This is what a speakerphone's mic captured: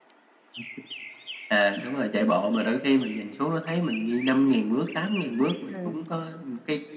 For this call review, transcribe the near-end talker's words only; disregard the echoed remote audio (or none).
Ừm.